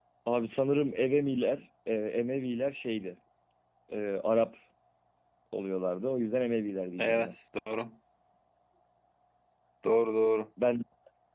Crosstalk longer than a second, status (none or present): none